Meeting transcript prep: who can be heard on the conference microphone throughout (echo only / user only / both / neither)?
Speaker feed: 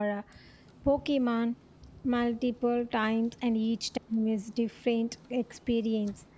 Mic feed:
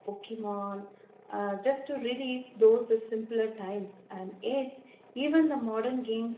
user only